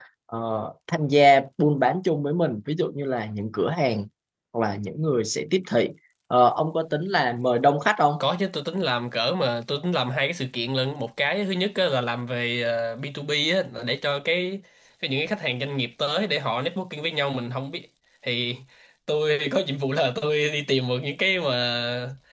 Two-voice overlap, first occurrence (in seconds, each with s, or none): none